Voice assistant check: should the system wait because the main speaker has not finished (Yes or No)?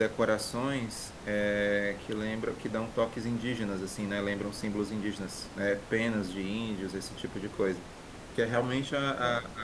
Yes